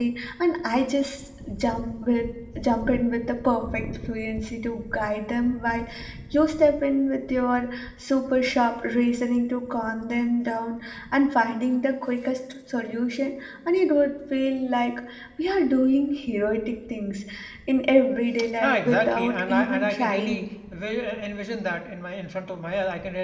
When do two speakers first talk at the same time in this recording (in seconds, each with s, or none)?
18.6 s